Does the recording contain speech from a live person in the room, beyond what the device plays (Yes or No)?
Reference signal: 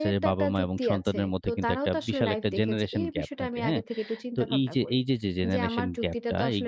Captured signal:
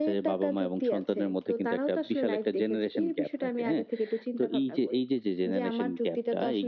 No